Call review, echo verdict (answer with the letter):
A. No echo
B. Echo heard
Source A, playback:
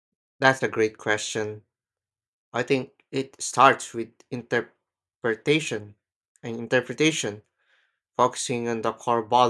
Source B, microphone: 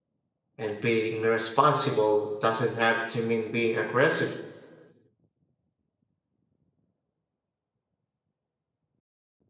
A